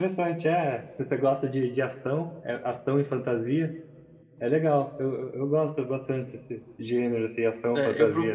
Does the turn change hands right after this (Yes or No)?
Yes